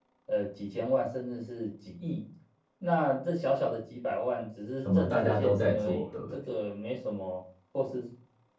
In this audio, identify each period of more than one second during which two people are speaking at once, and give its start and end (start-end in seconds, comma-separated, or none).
4.8-6.2